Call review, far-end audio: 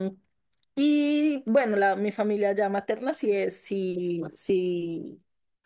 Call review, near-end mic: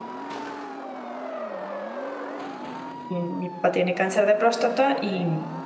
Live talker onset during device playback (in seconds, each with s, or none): 3.1 s